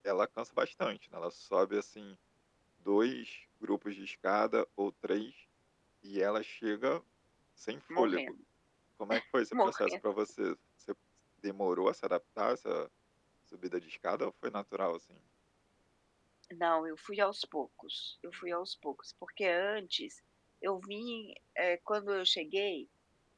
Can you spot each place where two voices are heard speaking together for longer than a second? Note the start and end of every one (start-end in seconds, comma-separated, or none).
none